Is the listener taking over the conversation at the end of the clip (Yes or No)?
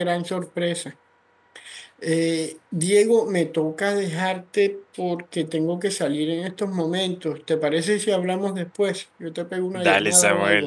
Yes